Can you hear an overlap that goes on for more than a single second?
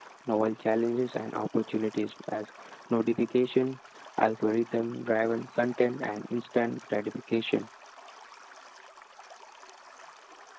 No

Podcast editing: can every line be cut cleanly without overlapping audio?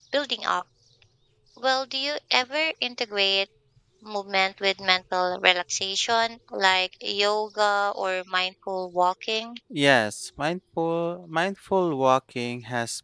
Yes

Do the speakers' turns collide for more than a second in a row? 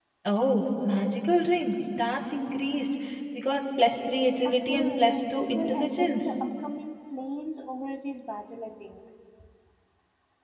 Yes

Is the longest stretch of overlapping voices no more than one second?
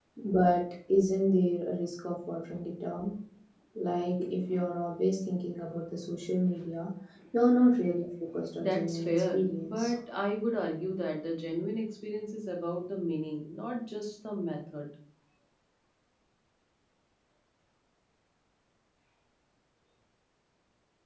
No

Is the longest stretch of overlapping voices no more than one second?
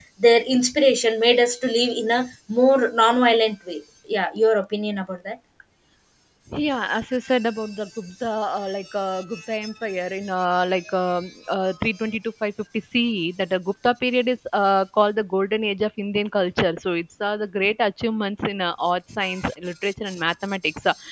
Yes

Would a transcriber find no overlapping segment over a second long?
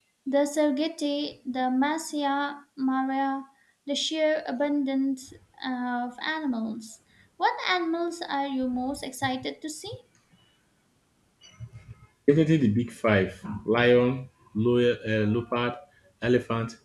Yes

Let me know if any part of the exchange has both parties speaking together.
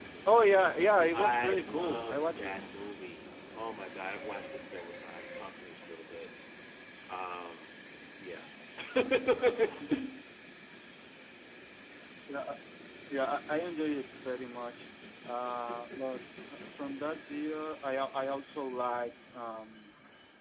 Yes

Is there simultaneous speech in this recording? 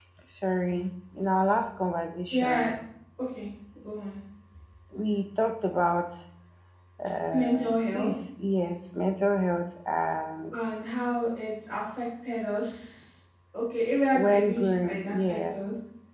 Yes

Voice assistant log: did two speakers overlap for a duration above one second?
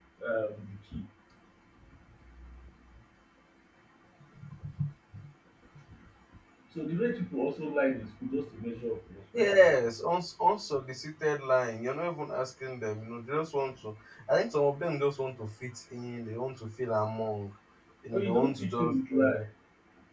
Yes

